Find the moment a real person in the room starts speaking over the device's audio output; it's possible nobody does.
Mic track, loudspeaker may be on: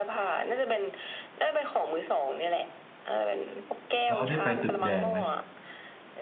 4.1 s

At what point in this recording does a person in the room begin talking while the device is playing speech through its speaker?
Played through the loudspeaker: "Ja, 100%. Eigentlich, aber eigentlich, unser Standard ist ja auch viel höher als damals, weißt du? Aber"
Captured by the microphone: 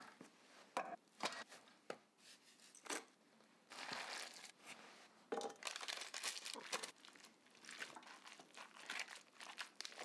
none

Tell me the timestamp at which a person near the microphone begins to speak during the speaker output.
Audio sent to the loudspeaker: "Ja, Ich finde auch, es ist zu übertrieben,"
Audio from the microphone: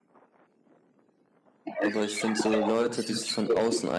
1.8 s

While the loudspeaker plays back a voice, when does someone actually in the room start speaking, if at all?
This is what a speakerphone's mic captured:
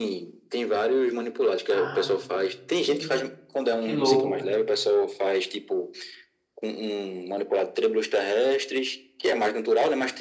1.7 s

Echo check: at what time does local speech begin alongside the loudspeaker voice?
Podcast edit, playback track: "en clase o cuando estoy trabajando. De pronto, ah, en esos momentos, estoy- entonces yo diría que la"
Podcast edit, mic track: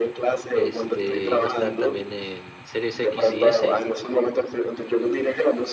0.5 s

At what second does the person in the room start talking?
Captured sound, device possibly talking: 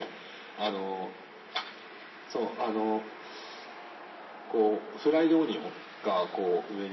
none

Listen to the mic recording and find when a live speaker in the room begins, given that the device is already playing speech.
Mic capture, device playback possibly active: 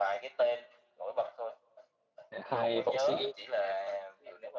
2.3 s

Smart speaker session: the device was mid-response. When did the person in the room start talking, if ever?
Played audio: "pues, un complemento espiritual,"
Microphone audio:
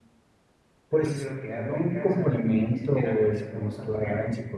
0.9 s

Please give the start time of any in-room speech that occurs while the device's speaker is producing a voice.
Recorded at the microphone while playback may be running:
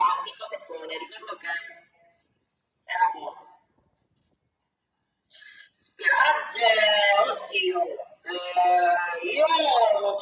none

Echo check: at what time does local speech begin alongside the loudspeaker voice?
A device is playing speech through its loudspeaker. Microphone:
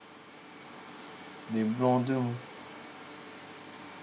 1.5 s

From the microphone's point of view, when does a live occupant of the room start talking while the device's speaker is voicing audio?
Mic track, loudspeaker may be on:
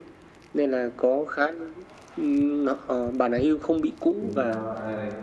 4.2 s

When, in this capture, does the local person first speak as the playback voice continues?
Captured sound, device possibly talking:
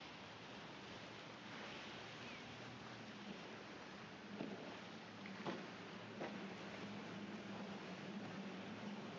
none

